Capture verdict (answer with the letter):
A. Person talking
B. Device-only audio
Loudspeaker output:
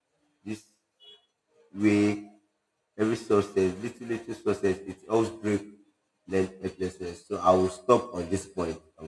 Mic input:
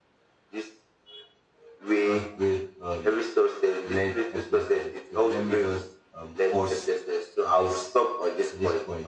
A